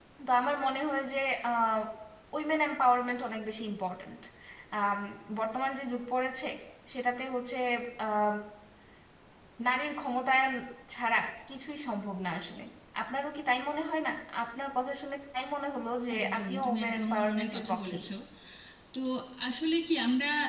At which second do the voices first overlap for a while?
16.1 s

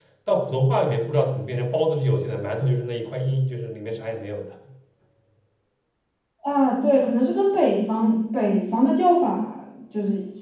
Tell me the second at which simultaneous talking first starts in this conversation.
none

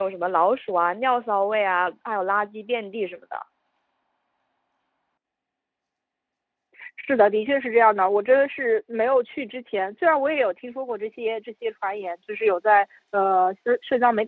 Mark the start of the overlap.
none

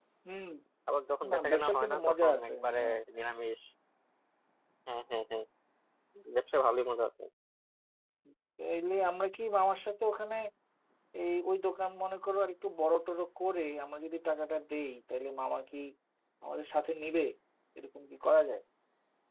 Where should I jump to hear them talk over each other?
1.3 s

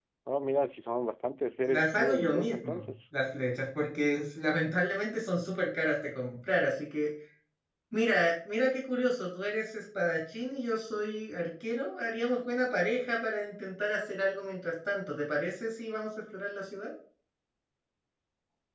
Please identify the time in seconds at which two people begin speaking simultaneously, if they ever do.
1.7 s

